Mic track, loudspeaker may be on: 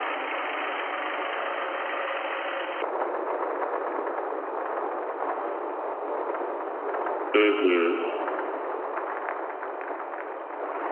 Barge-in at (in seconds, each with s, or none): 7.3 s